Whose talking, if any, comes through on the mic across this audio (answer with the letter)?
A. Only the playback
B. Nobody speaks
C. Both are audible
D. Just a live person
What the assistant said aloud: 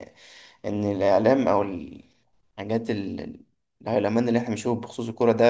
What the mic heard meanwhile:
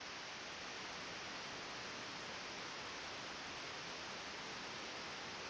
B